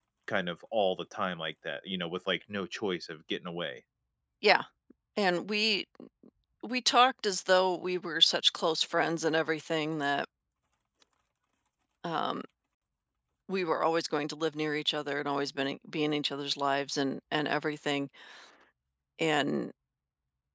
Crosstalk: none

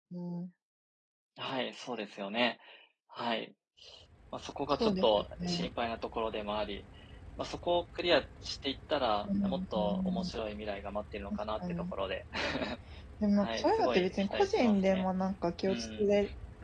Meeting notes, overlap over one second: present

